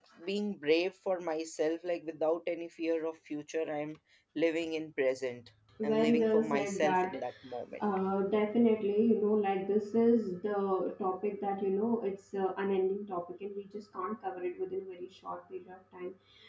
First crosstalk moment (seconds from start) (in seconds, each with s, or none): 5.8 s